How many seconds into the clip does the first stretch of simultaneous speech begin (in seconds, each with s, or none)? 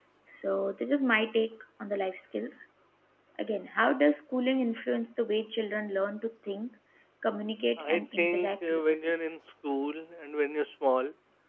7.8 s